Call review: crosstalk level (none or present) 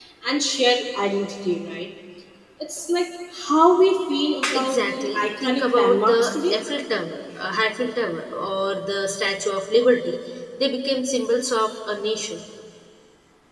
present